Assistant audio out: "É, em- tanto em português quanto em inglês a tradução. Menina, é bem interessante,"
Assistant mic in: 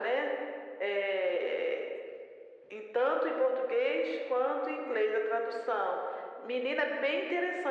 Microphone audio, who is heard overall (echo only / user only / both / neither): echo only